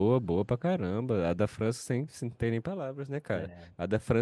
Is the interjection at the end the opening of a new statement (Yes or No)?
No